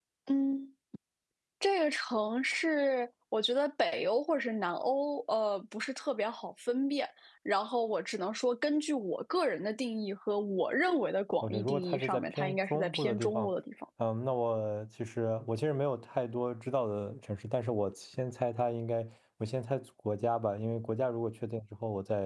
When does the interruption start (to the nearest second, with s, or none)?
11 s